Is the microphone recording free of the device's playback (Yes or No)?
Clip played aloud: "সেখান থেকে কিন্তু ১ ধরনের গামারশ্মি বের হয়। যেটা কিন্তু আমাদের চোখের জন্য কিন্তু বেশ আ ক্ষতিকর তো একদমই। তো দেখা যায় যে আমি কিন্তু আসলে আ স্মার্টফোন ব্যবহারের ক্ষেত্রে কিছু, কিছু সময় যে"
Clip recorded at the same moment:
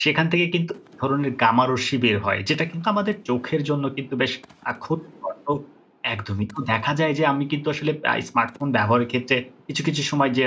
No